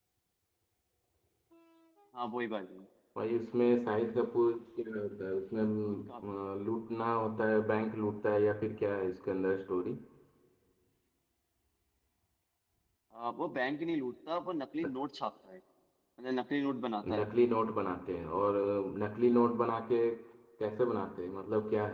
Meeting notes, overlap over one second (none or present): none